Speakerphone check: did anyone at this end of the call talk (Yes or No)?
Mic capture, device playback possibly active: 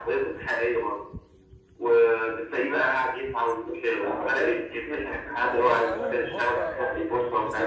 Yes